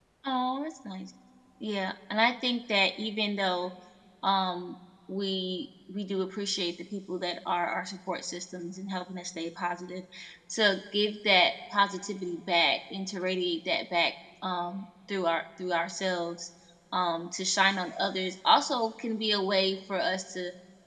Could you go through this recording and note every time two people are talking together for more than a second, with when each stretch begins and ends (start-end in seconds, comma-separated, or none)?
none